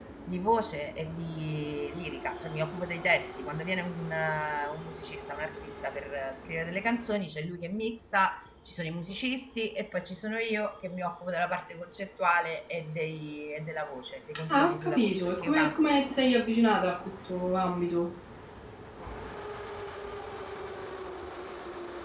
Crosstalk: present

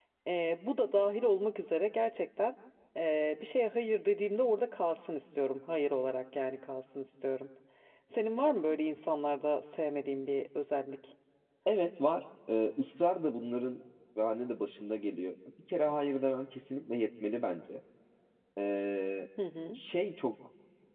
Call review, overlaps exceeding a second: none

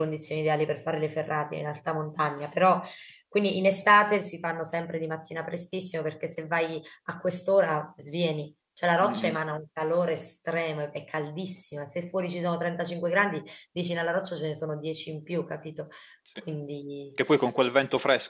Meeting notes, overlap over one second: none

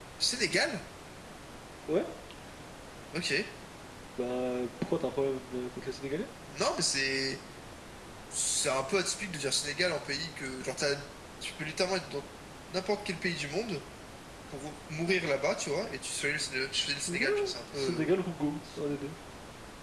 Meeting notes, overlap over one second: none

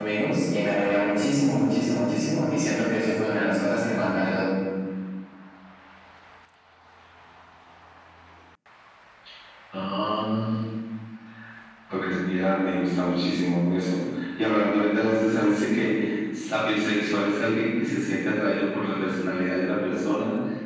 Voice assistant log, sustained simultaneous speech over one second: none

